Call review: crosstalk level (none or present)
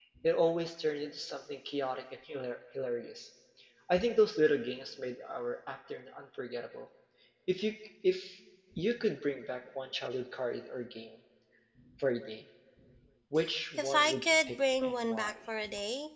present